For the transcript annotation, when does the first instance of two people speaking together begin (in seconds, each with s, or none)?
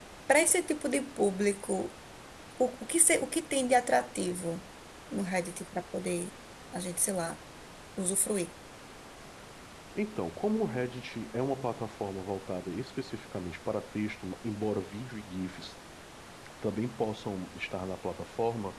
none